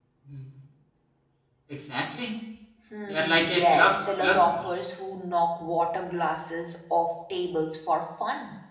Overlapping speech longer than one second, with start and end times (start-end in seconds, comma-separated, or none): 3.1-4.9